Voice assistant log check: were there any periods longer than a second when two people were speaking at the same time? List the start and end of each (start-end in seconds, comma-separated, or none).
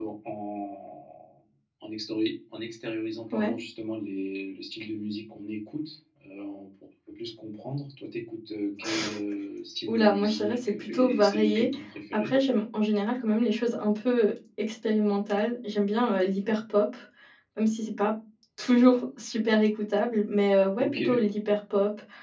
9.9-11.7